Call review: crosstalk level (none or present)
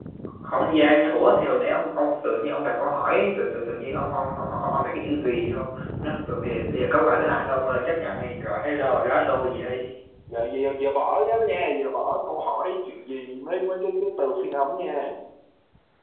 none